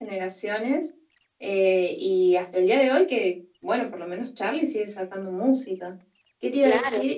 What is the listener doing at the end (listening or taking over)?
listening